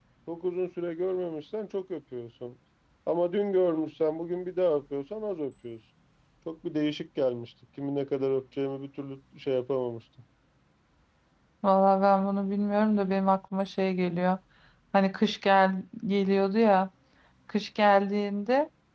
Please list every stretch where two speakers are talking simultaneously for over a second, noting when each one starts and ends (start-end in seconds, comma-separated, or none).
none